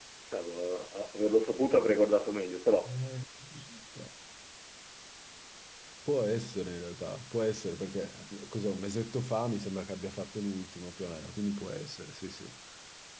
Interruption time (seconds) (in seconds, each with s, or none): none